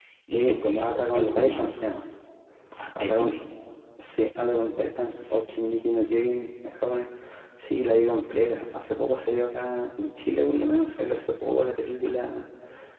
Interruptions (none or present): present